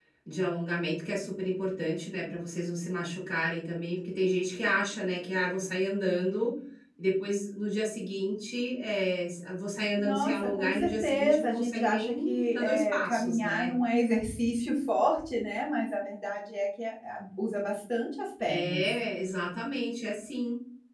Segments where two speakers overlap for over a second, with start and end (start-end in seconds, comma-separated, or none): 10.0-13.7